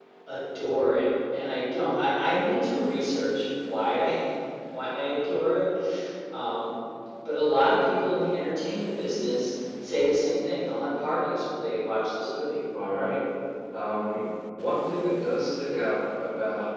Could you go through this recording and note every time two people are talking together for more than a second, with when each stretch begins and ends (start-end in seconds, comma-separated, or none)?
none